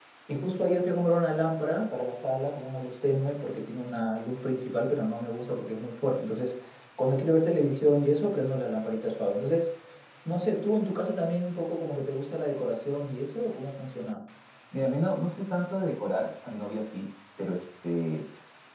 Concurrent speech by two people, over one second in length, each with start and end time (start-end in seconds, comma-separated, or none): none